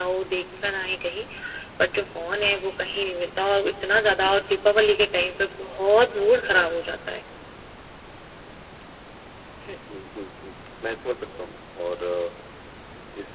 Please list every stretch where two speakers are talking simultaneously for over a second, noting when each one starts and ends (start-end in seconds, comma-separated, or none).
none